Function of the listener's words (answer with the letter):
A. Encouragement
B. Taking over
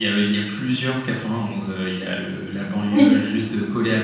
A